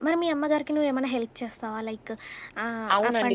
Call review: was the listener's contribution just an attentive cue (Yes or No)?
No